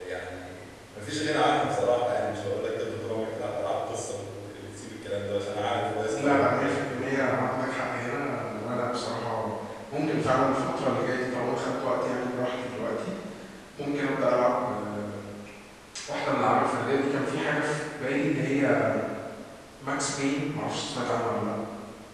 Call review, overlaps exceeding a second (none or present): present